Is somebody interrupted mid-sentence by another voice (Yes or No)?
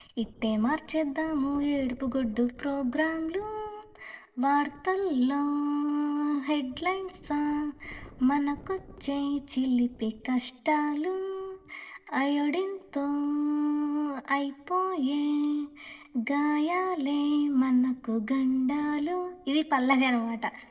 No